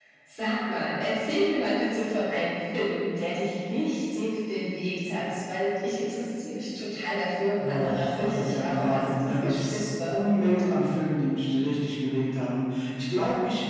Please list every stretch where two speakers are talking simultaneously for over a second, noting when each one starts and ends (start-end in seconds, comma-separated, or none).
7.6-10.2